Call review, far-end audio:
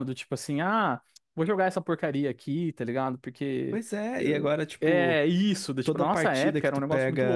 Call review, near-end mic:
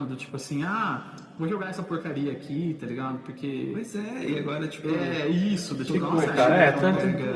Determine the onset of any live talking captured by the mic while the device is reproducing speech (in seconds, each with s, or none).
5.8 s